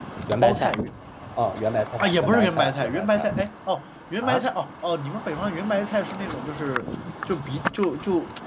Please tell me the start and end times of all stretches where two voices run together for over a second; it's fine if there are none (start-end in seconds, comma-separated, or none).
2.0-3.3